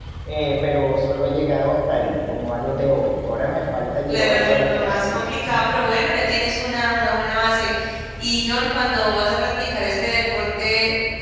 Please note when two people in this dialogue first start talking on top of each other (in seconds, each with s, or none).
4.1 s